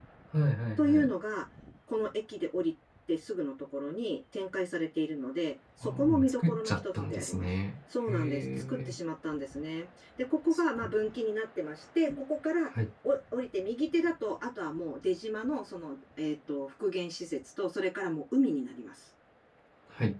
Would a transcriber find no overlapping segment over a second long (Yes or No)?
No